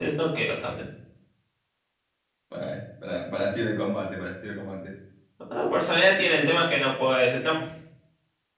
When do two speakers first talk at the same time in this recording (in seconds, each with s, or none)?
none